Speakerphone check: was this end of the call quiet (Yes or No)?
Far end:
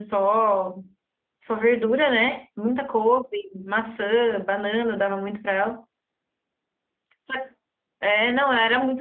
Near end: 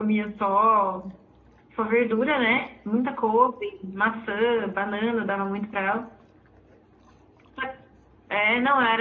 Yes